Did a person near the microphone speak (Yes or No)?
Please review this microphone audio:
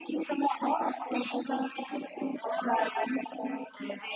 No